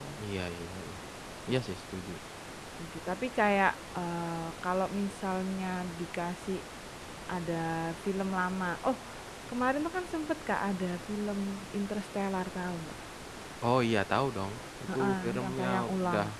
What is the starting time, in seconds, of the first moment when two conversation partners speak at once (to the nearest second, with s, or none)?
15 s